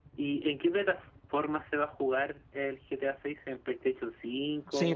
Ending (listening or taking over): taking over